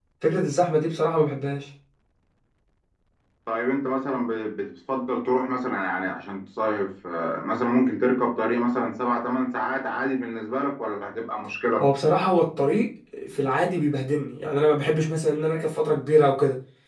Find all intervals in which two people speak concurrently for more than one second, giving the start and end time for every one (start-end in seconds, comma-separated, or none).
none